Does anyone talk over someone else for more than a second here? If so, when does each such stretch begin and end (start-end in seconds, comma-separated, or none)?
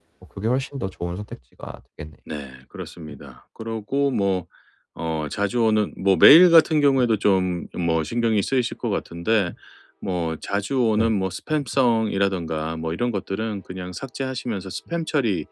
none